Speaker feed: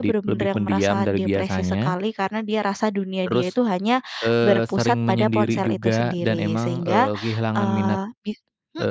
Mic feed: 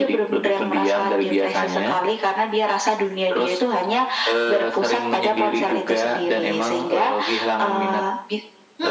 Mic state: echo only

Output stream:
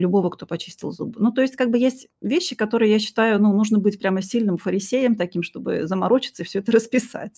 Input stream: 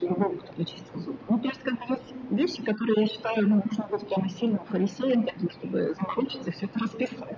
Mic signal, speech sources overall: echo only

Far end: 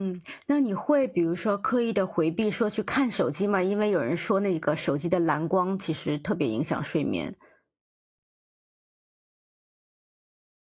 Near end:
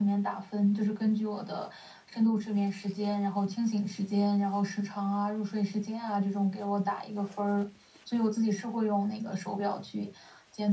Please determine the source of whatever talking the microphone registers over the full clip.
user only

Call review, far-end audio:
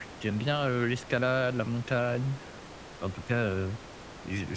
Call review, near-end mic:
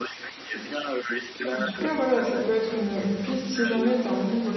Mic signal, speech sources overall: both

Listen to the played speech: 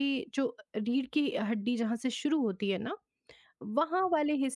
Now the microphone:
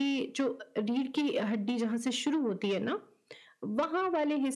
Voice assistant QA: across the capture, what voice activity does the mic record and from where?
echo only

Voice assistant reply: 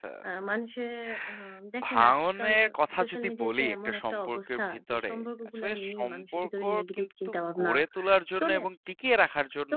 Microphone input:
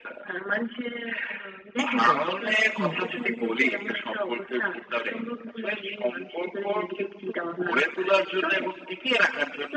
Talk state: both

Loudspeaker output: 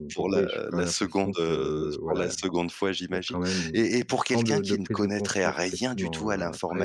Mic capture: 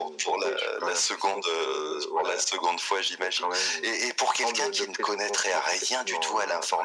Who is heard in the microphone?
echo only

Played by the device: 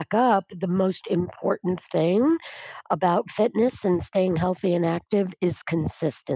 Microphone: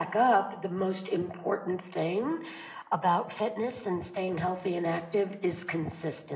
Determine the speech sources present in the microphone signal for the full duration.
echo only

